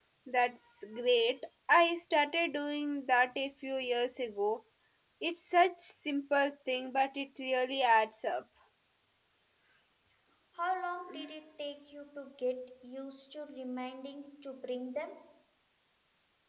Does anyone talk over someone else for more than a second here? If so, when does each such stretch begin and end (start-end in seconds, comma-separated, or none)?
none